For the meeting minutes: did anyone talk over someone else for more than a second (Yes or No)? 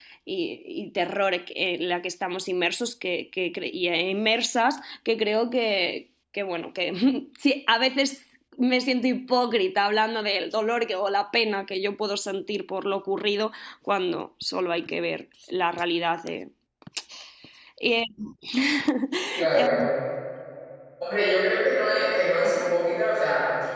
No